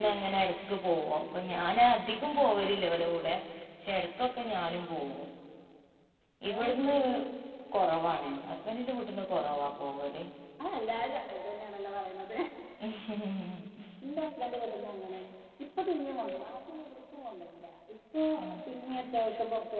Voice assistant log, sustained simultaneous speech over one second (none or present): none